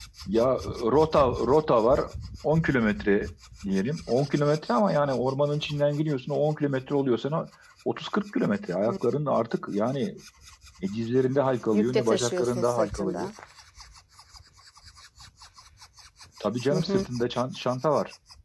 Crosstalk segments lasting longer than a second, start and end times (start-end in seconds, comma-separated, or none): 11.7-13.3